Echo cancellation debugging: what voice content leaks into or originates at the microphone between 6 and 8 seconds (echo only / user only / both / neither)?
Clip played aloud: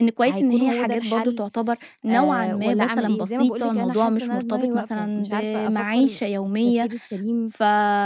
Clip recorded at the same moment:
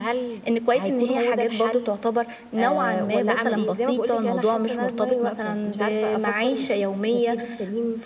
echo only